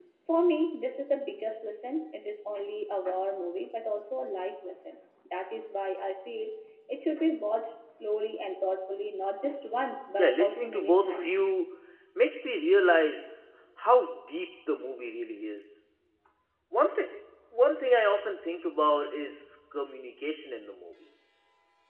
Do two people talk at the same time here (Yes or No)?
Yes